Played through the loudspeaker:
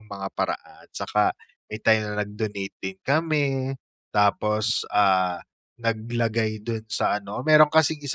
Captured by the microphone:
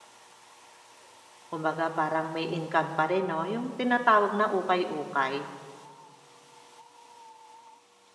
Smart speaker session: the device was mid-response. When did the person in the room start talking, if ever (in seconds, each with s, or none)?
1.5 s